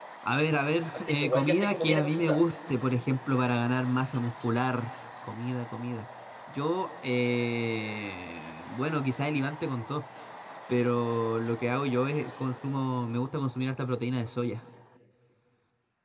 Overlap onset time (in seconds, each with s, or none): 0.9 s